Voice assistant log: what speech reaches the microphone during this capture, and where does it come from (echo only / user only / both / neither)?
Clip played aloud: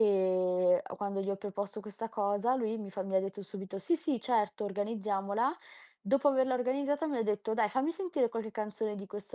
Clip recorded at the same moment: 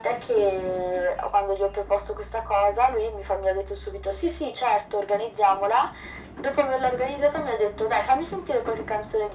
echo only